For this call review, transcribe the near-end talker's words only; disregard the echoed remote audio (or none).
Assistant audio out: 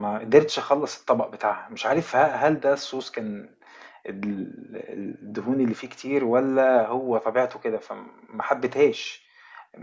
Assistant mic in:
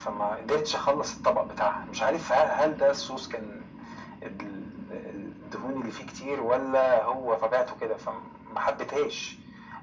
none